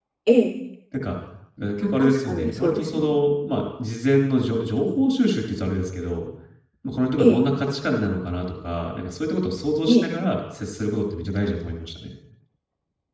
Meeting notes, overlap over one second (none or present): present